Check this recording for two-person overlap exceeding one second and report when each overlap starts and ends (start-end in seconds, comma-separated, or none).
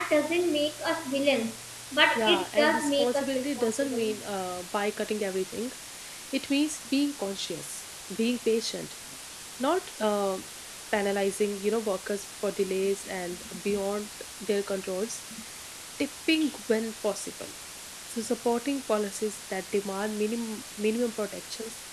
2.2-4.1